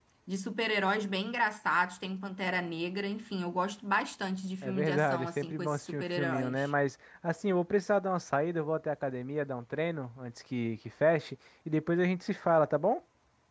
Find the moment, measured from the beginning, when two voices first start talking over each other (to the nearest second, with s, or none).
5 s